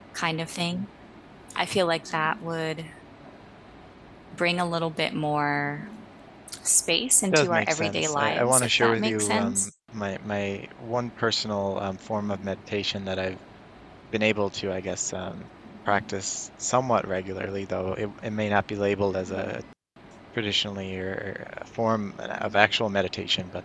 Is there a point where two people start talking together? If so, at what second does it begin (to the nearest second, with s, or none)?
7 s